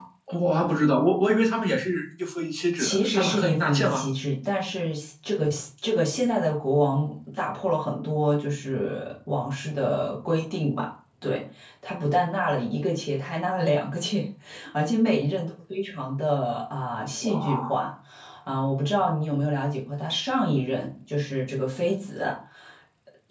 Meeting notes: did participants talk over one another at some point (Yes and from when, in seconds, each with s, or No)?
Yes, from 2.8 s